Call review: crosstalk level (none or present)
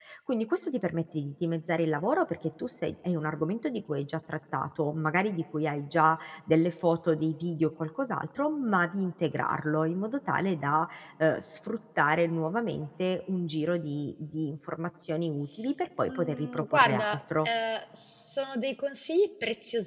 present